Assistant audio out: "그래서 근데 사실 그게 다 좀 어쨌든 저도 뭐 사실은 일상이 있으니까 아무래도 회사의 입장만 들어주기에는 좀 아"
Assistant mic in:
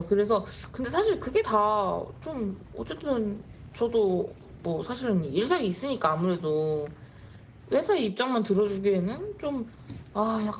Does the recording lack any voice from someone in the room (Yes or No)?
Yes